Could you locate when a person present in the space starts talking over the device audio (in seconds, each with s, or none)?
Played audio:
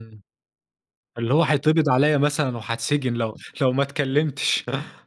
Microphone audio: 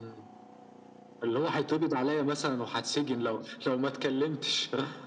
none